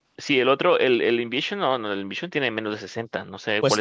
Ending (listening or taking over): taking over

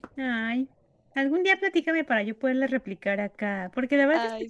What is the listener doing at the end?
listening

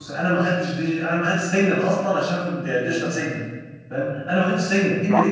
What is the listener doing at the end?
listening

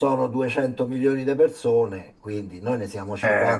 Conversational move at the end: listening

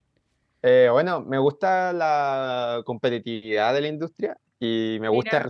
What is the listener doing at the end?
listening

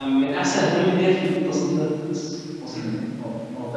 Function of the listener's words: taking over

